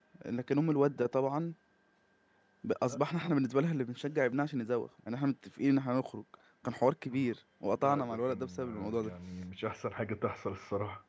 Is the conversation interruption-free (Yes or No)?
No